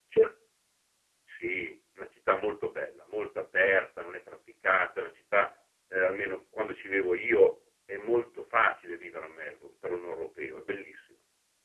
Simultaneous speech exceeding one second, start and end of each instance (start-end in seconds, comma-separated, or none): none